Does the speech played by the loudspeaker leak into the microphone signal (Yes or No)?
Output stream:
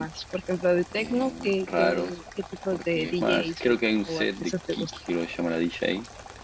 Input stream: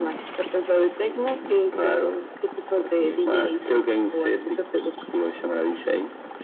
Yes